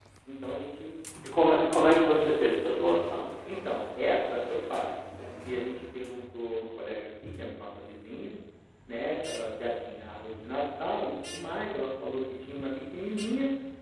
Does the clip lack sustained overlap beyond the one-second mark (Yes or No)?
Yes